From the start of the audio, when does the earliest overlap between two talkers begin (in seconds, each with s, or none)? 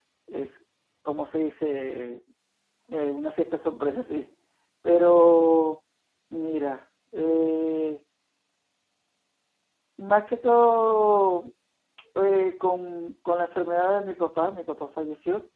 none